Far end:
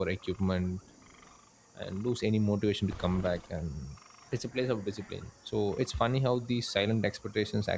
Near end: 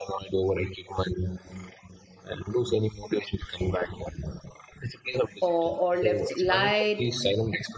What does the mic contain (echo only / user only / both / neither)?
both